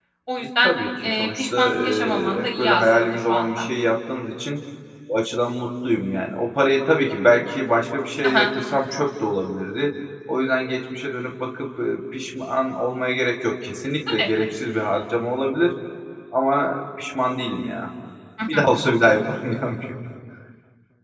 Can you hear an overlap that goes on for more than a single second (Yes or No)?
Yes